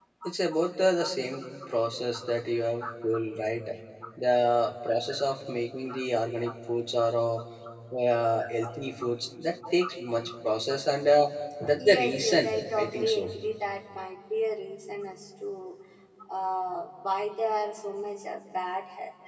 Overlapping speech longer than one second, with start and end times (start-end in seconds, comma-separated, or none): 11.8-13.3